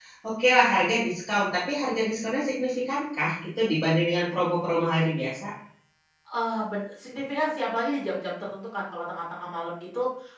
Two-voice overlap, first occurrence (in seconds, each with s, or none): none